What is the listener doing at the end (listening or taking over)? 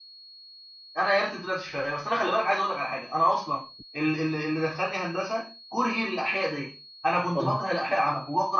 listening